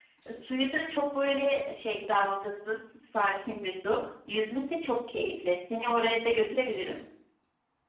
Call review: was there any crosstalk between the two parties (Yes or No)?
No